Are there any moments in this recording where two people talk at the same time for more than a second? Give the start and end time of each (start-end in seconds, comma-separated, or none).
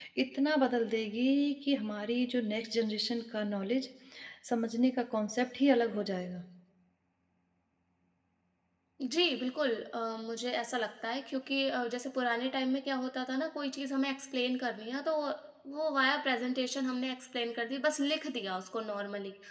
none